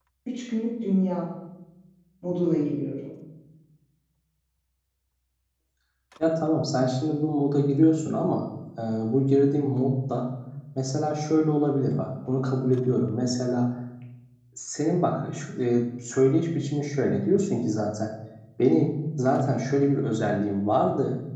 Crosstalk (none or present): none